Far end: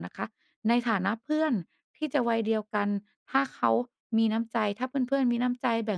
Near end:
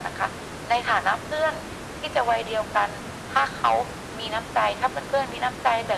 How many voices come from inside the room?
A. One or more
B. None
B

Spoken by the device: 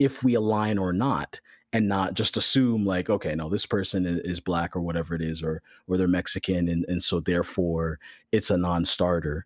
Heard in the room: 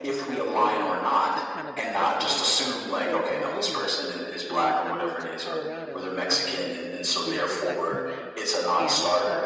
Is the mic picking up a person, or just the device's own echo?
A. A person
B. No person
A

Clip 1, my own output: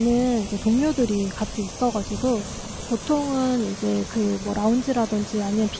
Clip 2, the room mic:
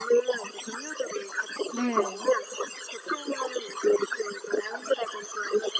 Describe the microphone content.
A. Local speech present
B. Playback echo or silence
A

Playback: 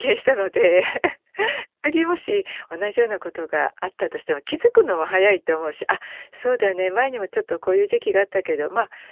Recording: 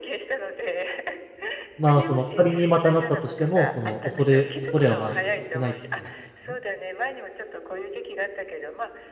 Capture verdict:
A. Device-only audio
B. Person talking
B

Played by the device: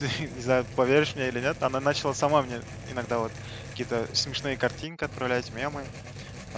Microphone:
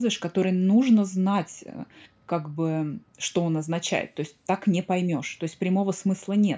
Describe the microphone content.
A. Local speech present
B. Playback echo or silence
A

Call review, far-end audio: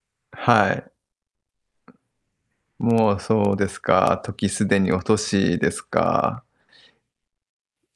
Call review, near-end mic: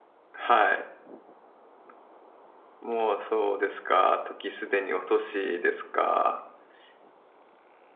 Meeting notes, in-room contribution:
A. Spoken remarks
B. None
B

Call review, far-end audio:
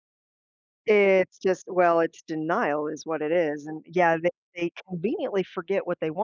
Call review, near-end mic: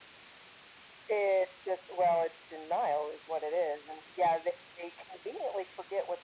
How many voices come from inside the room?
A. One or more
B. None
B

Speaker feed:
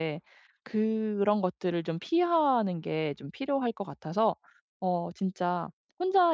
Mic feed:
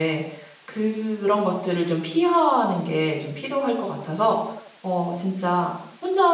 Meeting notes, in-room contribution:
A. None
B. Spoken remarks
A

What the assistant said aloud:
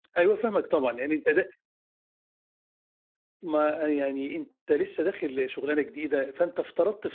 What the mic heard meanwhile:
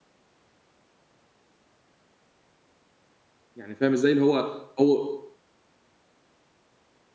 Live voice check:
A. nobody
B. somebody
B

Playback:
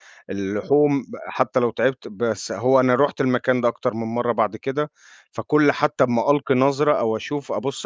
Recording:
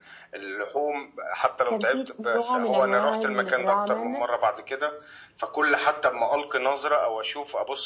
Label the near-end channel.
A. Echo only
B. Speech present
B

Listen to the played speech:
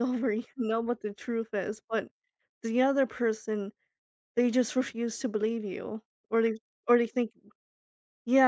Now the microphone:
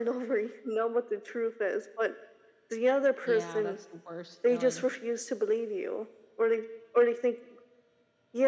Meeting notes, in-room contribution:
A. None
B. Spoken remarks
B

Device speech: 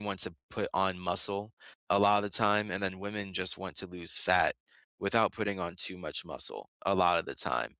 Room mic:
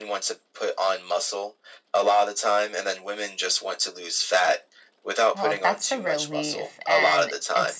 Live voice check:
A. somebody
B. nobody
A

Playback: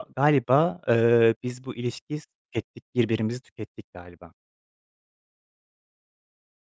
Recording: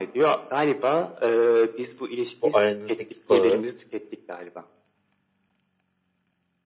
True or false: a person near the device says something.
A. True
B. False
A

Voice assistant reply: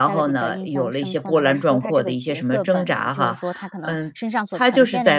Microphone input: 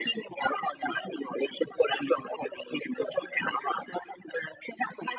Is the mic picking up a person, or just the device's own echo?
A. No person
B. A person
A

